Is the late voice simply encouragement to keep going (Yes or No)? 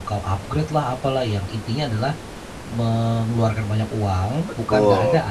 Yes